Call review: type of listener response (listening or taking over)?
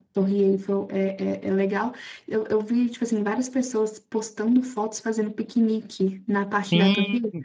taking over